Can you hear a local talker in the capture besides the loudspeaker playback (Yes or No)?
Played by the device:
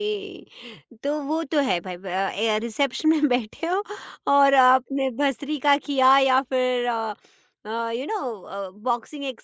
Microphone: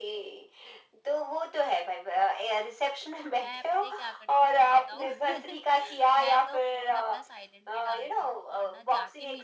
Yes